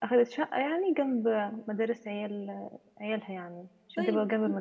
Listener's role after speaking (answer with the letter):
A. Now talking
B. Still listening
A